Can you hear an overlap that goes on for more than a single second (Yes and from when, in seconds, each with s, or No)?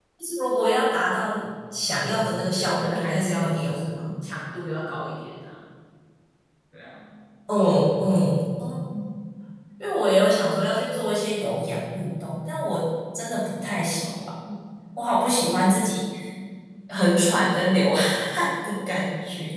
Yes, from 2.6 s